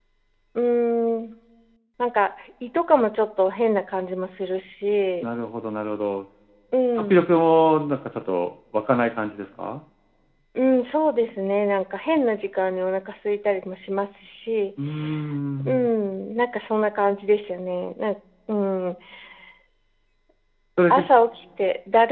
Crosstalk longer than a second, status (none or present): none